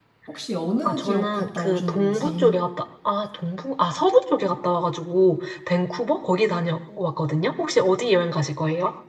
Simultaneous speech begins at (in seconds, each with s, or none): 0.8 s